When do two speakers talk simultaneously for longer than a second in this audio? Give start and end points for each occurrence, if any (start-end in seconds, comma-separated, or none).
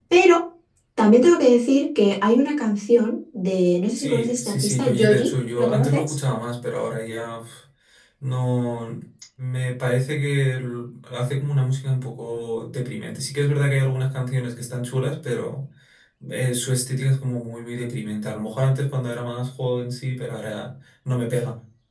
4.0-6.2